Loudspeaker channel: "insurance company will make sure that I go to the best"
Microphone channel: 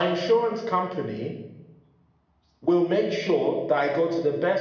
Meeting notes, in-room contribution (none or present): none